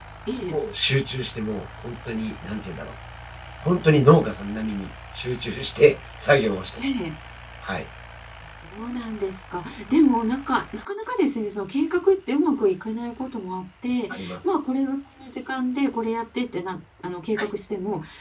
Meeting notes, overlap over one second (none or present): none